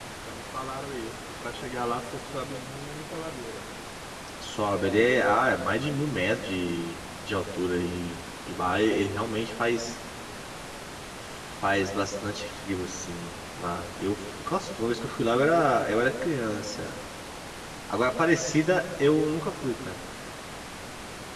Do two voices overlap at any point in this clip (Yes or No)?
No